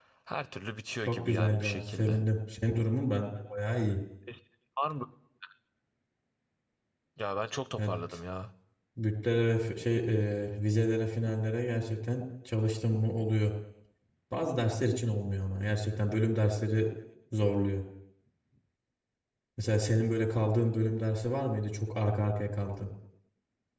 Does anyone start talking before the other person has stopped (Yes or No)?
Yes